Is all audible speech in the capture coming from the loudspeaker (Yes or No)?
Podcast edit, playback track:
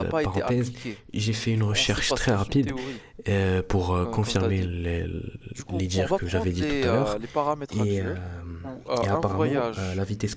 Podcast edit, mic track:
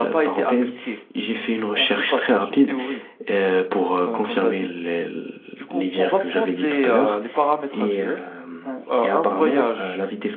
Yes